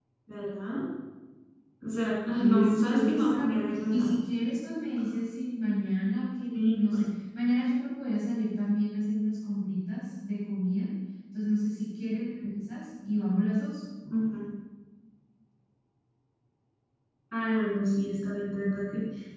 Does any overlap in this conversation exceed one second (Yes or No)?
Yes